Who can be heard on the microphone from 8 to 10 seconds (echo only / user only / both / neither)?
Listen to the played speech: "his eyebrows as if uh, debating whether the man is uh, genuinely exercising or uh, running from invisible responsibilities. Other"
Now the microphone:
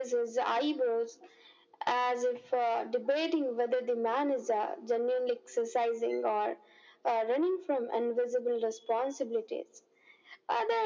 echo only